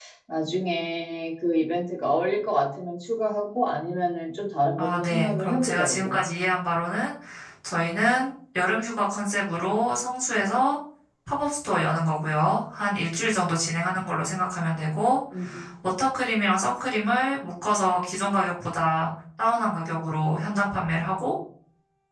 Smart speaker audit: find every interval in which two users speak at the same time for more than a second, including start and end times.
4.8-6.2

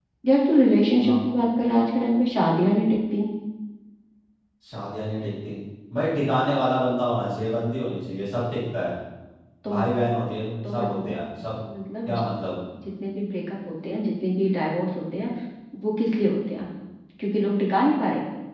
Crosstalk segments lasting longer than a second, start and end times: none

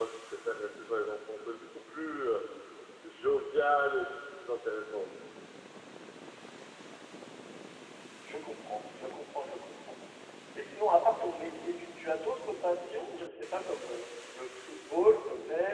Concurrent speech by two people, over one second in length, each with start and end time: none

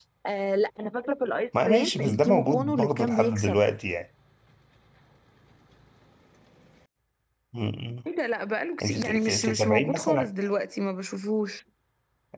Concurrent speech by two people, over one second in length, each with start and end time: 1.6-3.6, 8.8-10.3

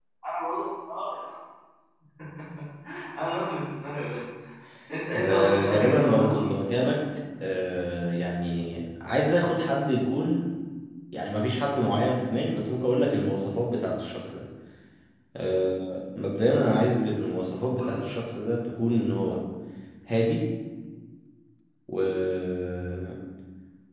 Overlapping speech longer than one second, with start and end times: 5.1-6.5

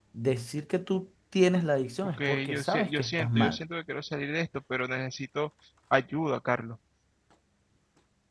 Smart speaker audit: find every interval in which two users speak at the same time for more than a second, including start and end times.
2.2-3.6

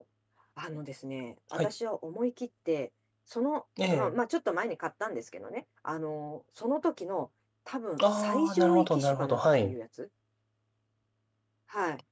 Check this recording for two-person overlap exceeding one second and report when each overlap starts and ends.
8.0-9.8

